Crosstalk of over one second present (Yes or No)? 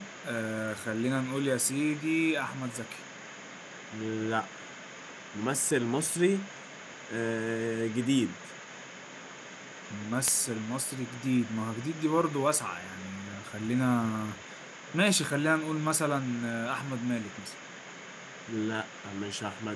No